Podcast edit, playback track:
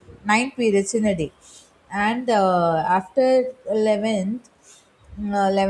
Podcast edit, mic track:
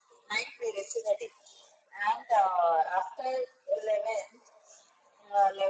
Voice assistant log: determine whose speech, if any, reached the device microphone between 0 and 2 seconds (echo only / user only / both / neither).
echo only